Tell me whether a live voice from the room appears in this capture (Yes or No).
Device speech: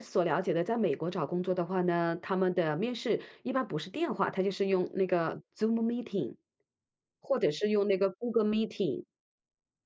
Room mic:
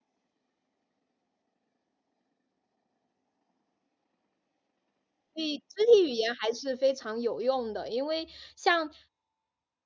Yes